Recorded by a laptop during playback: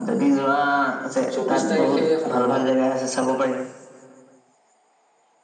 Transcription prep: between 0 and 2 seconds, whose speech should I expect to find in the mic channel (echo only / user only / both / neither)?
both